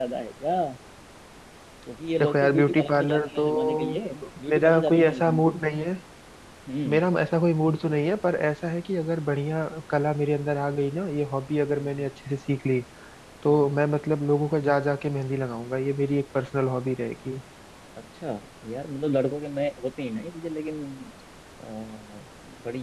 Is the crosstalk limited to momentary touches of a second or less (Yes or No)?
No